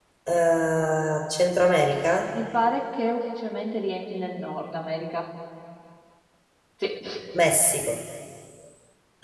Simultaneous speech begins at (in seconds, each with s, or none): none